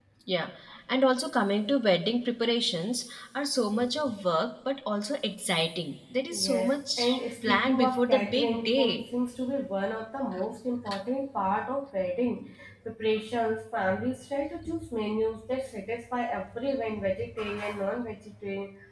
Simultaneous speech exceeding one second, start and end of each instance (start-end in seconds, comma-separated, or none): 6.3-9.0